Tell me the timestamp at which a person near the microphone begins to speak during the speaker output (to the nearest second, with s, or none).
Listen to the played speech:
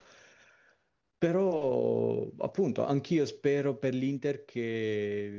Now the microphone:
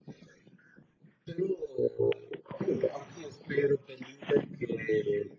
none